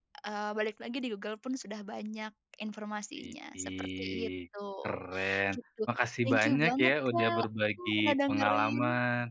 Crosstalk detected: Yes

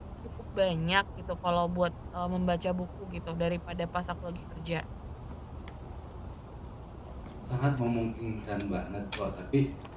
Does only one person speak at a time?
Yes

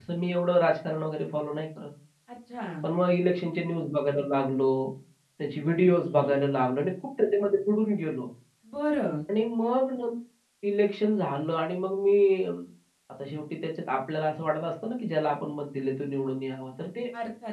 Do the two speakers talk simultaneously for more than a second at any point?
No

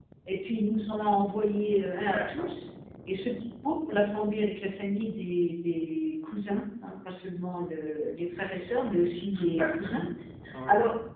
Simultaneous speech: Yes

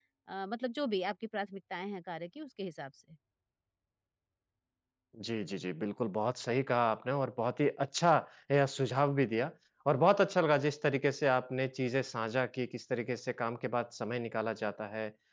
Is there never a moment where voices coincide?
Yes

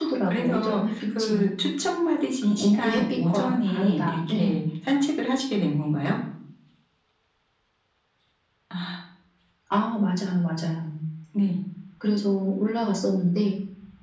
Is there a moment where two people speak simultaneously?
Yes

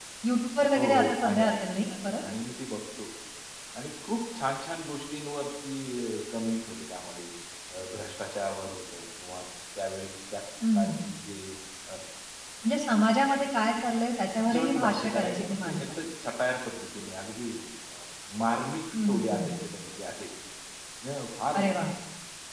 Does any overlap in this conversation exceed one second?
Yes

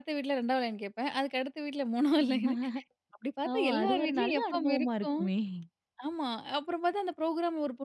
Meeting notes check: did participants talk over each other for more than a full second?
Yes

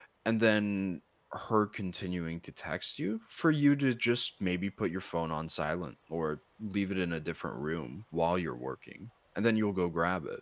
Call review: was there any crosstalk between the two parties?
No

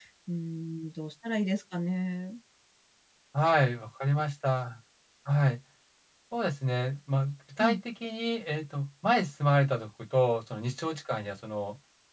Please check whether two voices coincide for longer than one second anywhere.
No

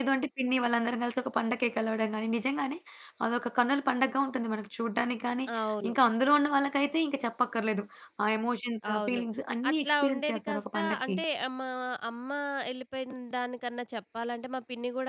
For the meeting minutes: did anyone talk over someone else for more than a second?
Yes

